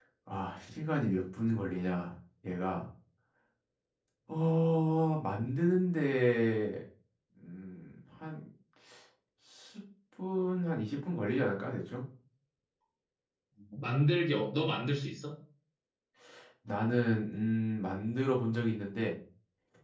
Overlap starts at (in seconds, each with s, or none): none